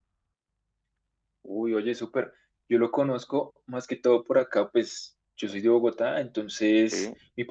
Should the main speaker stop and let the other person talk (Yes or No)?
No